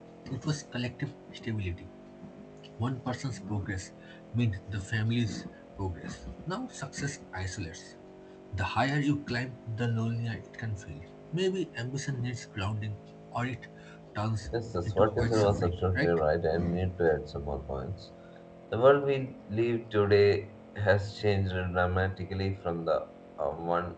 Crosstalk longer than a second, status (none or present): present